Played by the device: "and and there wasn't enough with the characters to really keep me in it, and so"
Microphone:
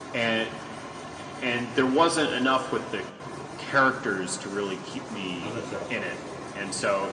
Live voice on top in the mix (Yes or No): No